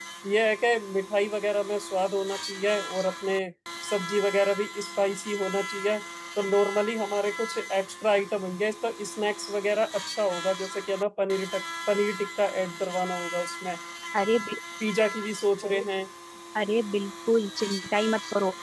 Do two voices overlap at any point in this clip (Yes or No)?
No